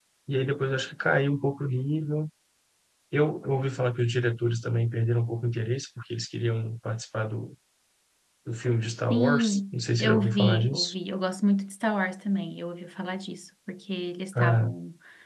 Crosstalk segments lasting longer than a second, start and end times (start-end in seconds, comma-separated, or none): 9.1-10.9